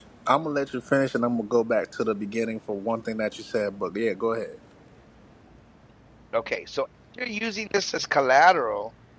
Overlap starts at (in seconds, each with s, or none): none